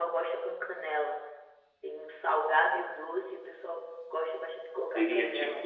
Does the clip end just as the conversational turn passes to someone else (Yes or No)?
Yes